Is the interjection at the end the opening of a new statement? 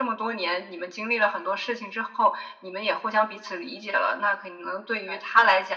No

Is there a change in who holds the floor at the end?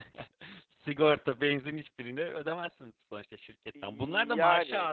No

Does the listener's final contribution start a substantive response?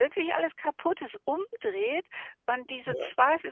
No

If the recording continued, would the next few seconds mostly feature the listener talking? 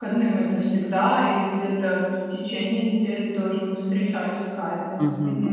Yes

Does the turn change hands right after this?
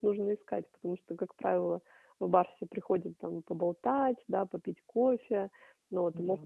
No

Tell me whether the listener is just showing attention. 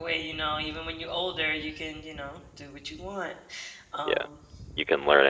No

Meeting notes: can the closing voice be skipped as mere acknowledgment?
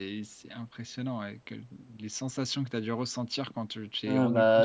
No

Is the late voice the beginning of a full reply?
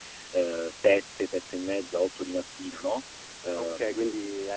Yes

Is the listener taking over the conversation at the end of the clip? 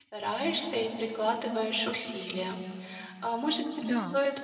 No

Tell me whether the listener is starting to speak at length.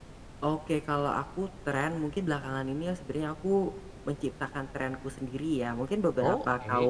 No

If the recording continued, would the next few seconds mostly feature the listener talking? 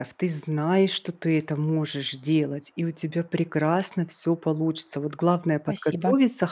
No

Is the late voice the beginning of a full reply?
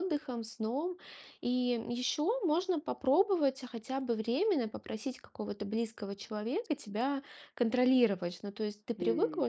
No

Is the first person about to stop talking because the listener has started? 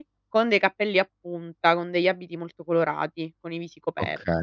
Yes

